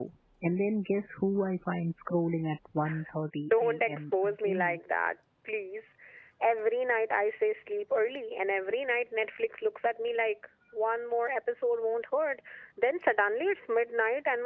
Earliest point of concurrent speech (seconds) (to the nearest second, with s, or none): 3 s